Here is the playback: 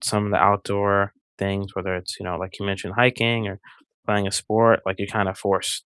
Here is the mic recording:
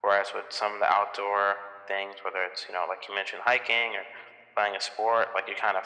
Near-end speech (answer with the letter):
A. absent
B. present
A